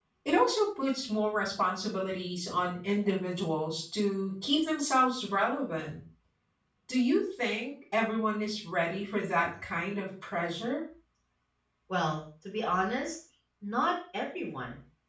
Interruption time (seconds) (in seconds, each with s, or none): none